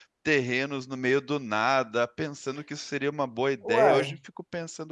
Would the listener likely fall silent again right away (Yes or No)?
Yes